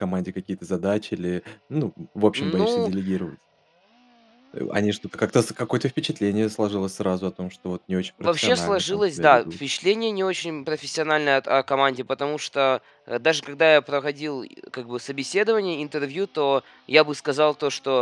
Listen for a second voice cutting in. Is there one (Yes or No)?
Yes